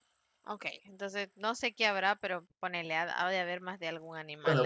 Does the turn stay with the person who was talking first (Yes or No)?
No